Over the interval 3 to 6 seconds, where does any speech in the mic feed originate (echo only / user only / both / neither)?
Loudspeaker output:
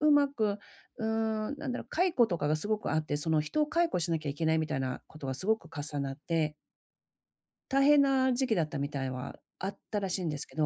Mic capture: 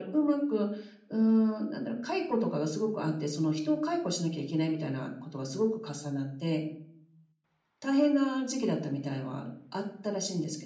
echo only